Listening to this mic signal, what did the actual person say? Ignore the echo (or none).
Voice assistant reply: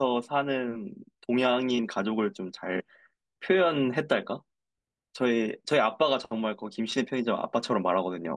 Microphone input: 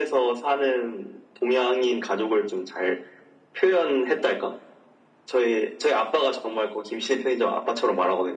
none